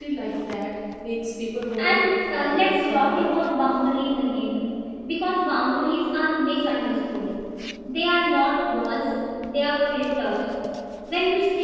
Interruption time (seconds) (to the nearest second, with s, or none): 2 s